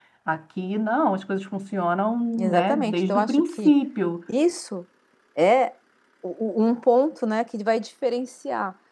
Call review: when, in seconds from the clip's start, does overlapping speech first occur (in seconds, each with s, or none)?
2.3 s